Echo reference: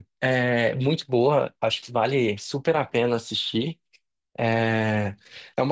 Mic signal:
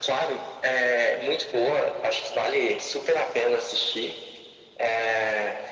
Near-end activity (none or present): none